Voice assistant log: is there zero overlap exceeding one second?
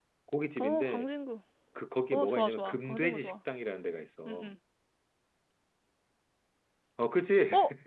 No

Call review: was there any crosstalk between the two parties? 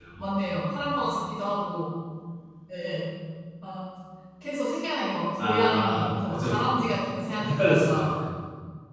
Yes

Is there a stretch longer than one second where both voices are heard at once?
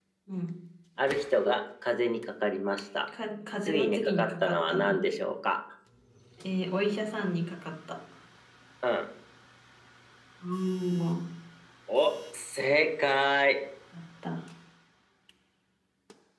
Yes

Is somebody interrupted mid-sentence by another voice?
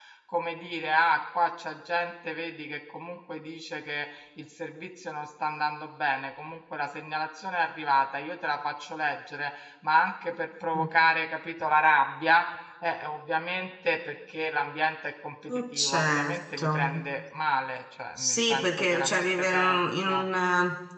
Yes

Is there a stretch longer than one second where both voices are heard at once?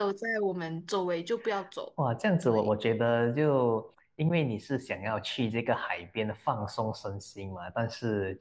No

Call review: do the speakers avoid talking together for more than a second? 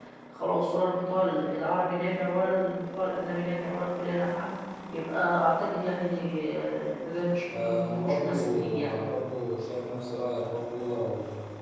No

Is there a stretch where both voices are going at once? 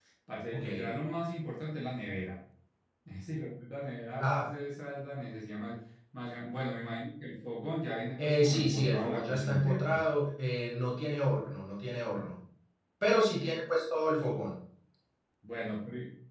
Yes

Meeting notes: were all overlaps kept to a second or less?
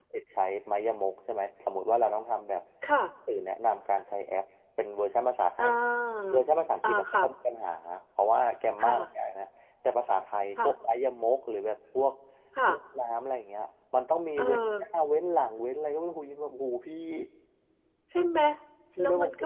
Yes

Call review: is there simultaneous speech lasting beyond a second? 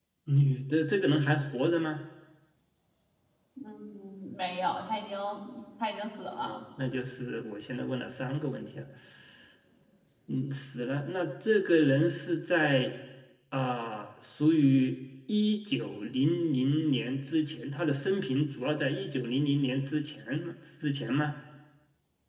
No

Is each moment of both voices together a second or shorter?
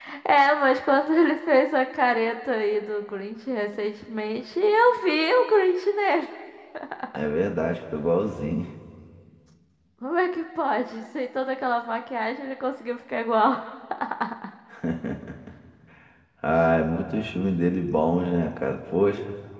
Yes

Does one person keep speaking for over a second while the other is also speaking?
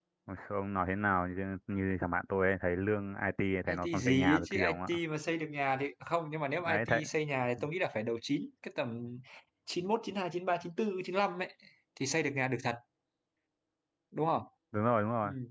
Yes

